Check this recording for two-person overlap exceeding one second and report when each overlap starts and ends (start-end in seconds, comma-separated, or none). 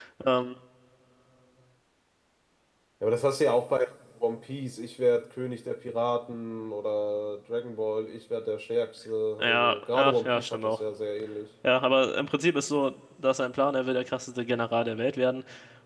9.4-10.8